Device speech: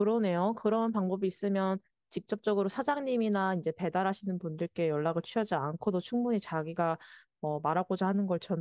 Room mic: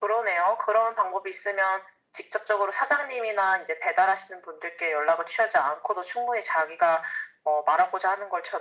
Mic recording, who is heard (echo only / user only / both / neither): echo only